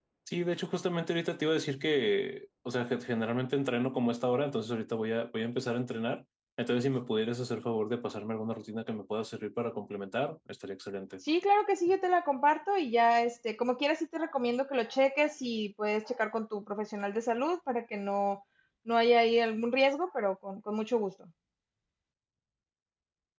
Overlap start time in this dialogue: none

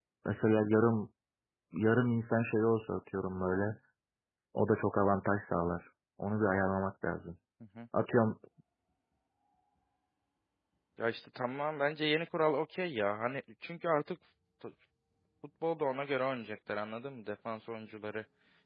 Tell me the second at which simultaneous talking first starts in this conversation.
none

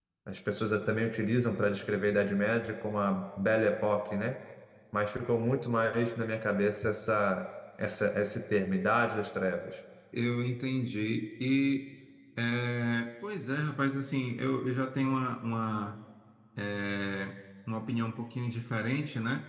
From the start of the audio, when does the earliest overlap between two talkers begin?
none

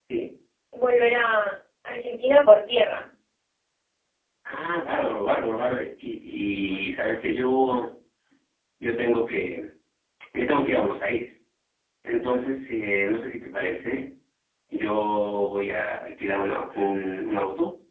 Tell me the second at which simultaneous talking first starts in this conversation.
none

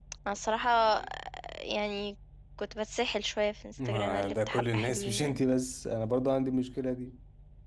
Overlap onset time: 3.8 s

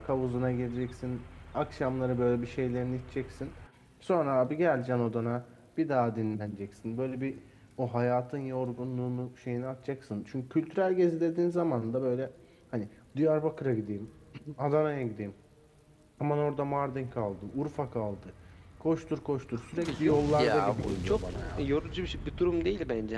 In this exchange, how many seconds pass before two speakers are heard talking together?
19.8 s

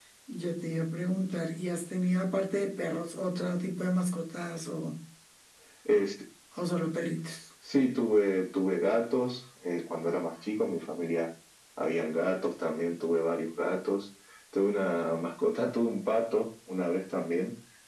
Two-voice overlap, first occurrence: none

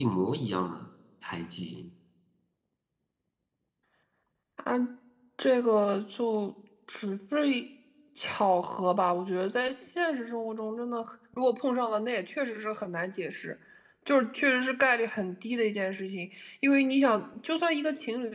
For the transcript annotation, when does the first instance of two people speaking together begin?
none

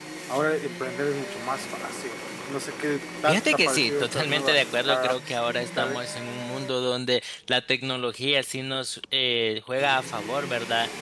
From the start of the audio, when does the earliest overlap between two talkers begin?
3.3 s

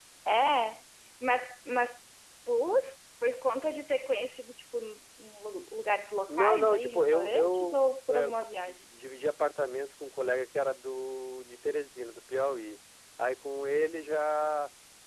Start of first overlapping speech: 6.3 s

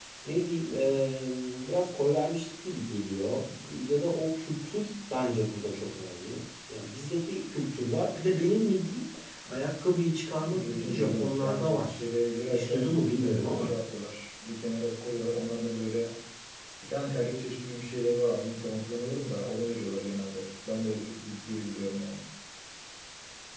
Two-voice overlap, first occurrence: 10.7 s

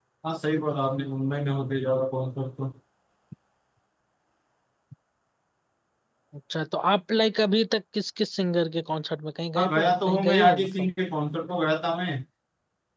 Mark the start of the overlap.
9.6 s

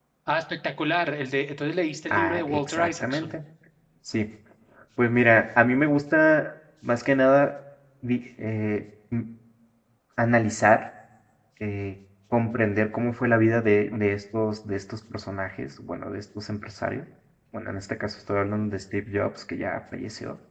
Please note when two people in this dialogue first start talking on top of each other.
2.1 s

